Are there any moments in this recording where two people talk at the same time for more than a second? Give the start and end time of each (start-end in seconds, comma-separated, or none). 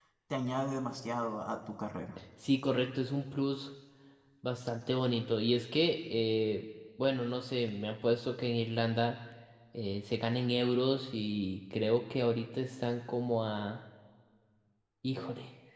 none